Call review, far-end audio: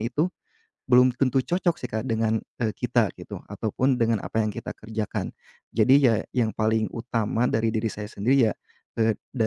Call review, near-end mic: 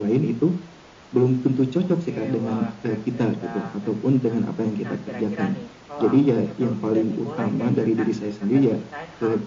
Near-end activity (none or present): present